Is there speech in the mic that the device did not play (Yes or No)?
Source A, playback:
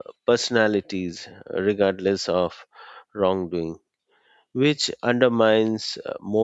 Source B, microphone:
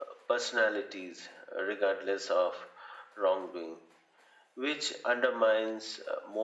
No